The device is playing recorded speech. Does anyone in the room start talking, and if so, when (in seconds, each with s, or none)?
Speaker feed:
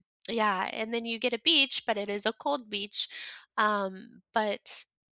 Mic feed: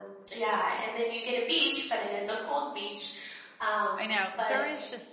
4.0 s